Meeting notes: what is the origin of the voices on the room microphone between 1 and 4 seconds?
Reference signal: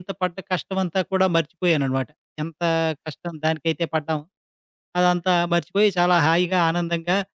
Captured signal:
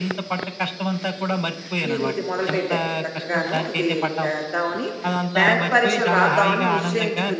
both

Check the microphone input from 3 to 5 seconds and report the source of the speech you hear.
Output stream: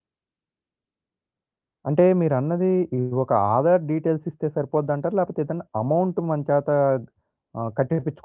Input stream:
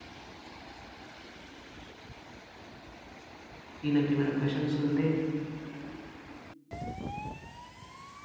user only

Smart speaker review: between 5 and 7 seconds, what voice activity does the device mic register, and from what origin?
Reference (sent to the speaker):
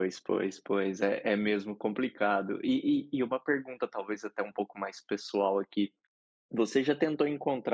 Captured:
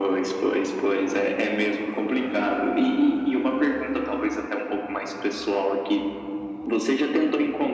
echo only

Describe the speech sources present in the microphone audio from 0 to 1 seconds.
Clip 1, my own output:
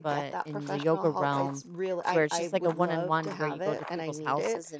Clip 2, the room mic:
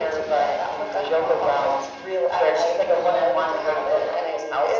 echo only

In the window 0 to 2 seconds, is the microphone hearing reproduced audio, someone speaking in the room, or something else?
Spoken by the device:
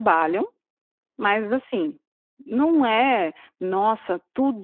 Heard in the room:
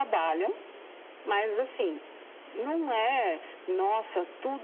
echo only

